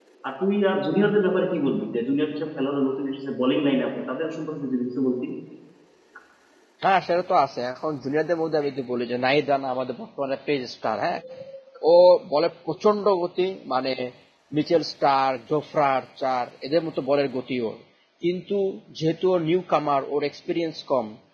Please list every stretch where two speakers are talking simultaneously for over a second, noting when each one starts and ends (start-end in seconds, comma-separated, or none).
none